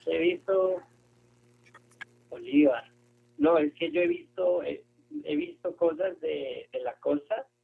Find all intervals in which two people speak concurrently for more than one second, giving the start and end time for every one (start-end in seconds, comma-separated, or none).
none